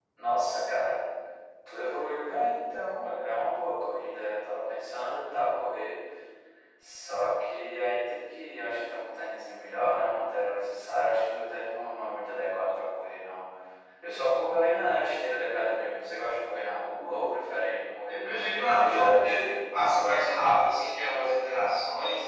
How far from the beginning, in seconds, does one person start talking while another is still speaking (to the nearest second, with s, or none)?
18 s